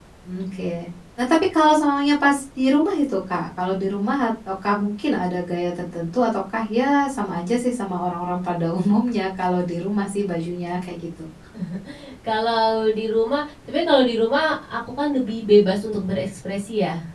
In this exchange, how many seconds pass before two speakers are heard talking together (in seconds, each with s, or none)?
none